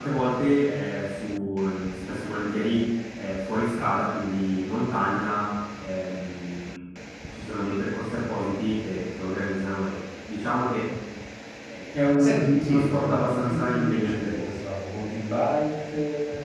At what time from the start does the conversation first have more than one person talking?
12.1 s

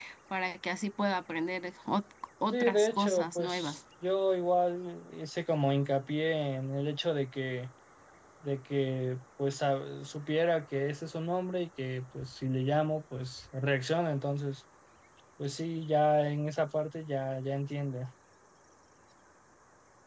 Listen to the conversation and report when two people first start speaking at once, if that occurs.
2.5 s

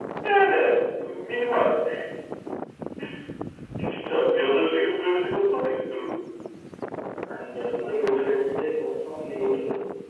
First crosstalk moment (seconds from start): none

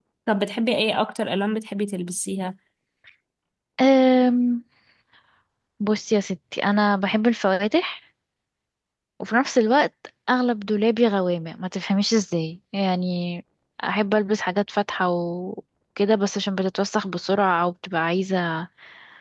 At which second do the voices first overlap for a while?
none

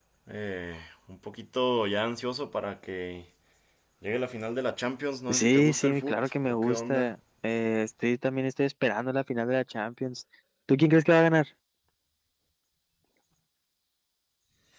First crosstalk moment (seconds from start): 5.3 s

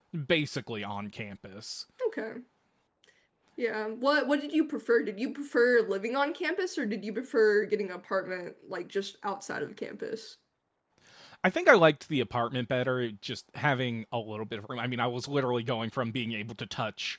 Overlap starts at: none

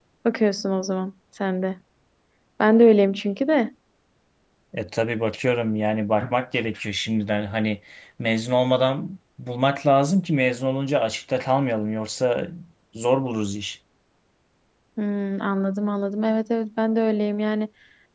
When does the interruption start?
none

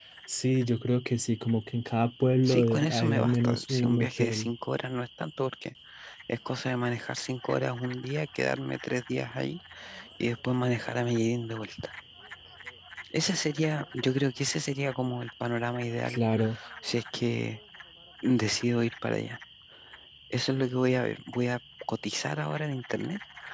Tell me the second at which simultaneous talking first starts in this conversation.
2.4 s

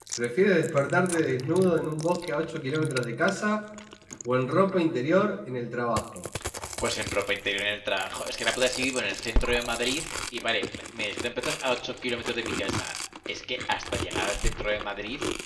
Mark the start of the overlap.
none

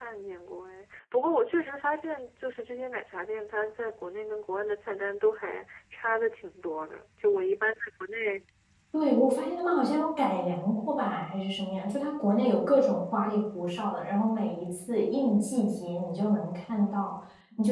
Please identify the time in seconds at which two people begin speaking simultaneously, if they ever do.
none

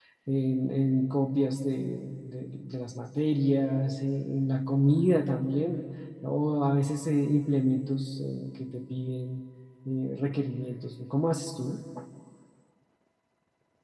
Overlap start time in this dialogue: none

